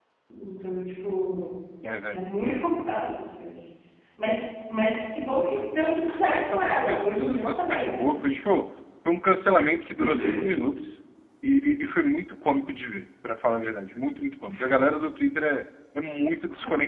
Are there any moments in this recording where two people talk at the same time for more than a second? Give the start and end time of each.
6.3-8.1

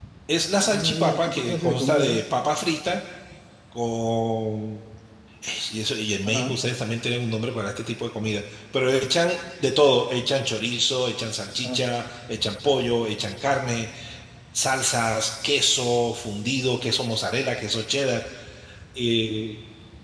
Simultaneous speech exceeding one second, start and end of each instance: 0.5-2.2

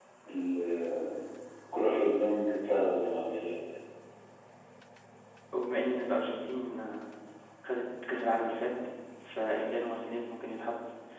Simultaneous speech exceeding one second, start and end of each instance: none

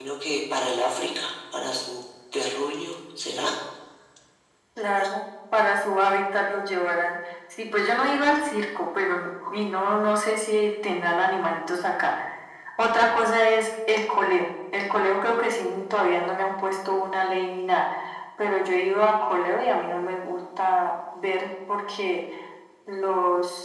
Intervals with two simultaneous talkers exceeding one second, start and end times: none

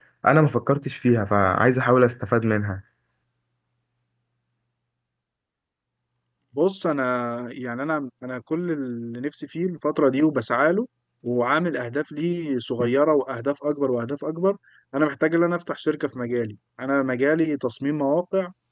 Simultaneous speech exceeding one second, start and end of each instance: none

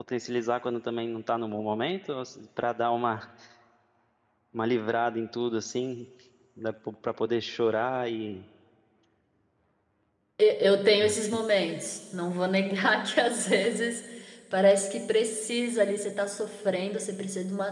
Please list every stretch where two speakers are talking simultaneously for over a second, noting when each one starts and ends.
none

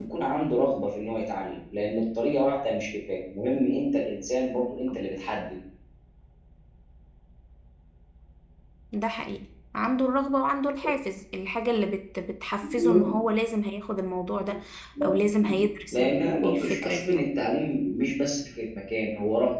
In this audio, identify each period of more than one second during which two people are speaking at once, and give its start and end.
15.9-17.2

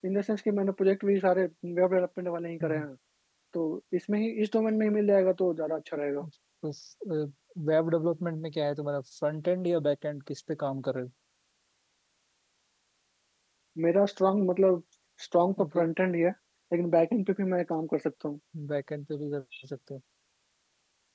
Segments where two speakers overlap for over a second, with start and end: none

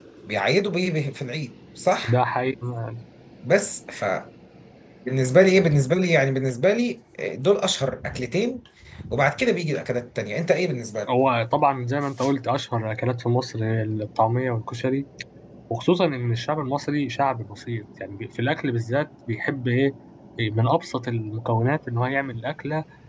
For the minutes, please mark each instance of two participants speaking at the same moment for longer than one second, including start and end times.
none

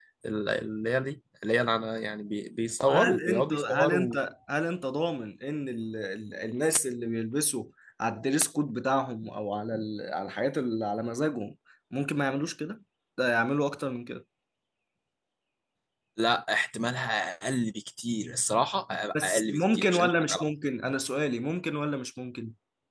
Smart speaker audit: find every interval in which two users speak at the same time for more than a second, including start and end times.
2.8-4.2, 19.1-20.5

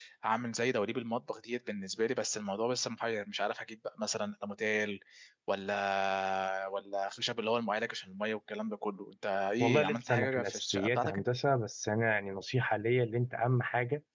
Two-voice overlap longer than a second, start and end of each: 9.6-11.2

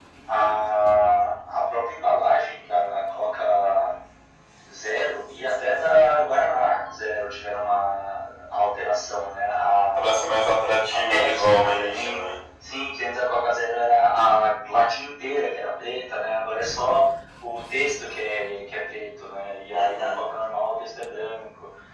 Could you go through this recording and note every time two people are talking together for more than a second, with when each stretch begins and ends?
10.9-12.2

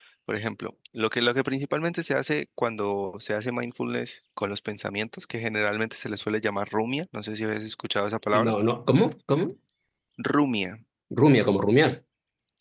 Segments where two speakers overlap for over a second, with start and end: none

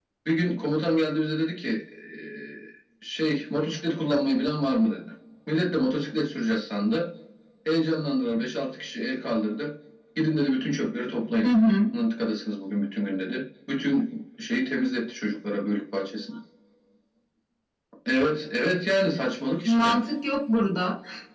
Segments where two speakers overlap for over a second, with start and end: none

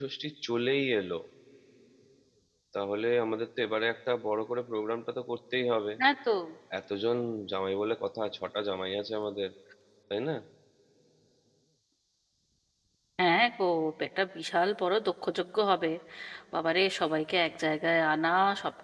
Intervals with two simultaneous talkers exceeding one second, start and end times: none

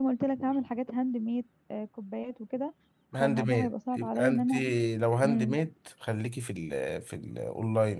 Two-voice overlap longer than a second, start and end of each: 3.2-4.5

